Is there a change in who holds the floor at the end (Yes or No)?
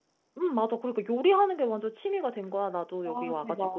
Yes